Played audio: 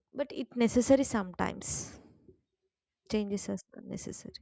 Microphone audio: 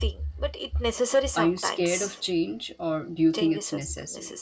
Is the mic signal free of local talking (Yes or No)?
No